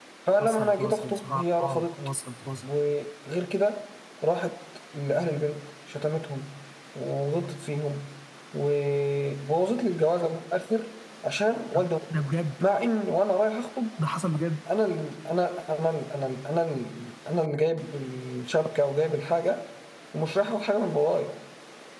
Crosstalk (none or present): present